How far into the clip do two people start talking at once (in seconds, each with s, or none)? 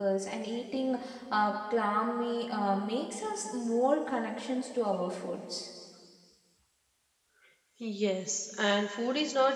none